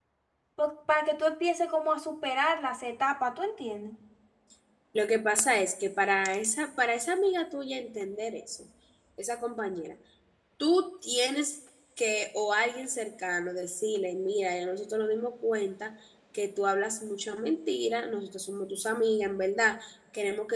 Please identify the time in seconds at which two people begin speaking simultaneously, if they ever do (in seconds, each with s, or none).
none